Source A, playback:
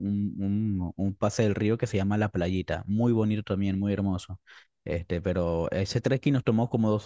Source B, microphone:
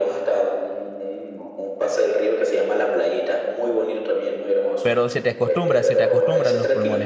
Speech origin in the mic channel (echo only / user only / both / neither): both